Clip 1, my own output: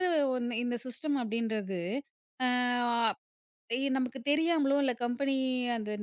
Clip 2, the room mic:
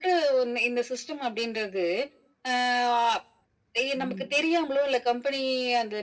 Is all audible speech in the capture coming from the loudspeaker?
No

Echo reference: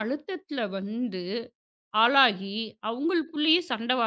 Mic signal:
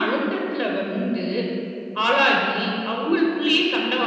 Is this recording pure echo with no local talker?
Yes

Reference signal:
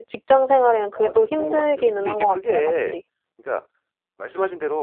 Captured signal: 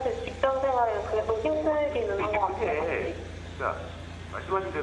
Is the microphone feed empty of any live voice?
Yes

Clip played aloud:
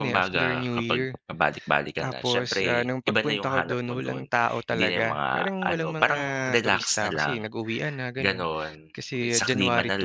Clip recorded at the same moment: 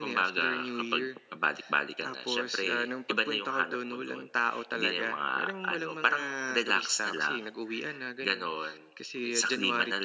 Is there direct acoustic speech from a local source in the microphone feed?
No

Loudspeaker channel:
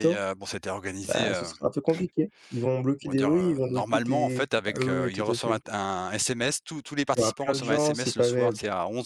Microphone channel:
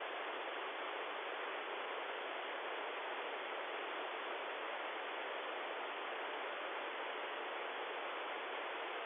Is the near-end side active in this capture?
No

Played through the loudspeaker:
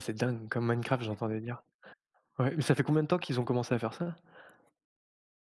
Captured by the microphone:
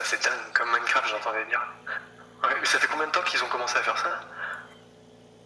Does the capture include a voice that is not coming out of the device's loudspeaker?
No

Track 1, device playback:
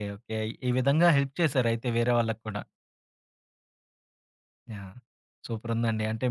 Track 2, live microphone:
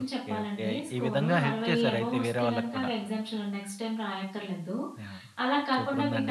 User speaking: Yes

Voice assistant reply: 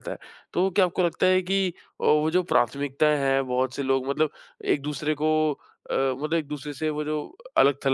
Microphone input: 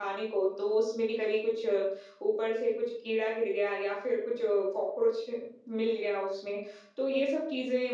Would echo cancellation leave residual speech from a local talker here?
Yes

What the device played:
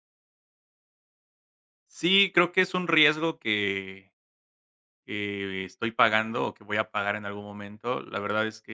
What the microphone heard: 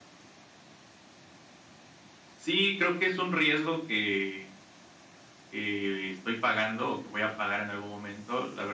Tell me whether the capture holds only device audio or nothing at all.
Yes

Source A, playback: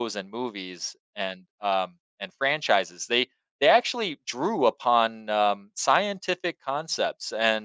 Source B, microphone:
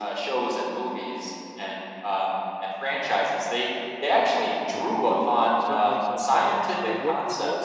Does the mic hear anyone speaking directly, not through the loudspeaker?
Yes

